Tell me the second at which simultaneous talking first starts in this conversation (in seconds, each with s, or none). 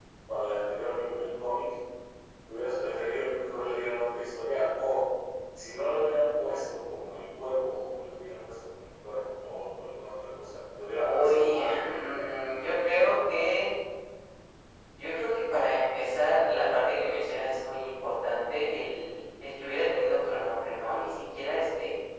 10.9 s